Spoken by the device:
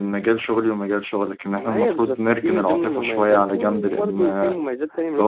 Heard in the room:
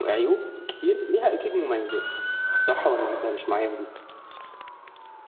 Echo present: No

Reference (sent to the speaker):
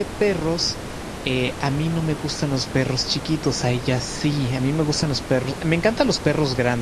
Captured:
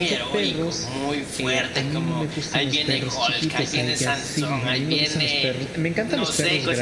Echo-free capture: No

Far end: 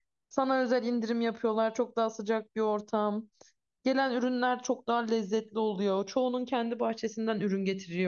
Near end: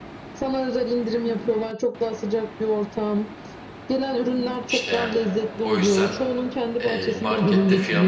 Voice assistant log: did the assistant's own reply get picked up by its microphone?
Yes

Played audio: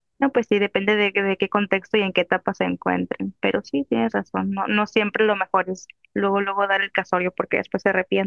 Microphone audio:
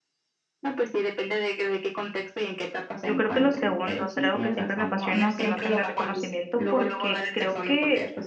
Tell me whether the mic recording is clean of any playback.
No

